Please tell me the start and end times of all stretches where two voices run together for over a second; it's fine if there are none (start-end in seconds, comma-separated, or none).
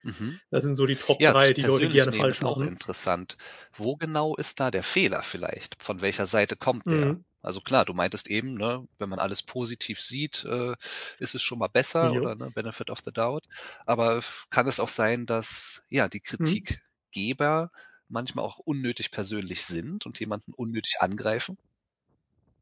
1.2-2.7